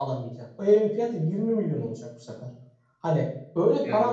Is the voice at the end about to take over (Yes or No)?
No